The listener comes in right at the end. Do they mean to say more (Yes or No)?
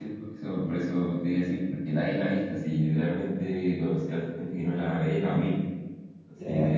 No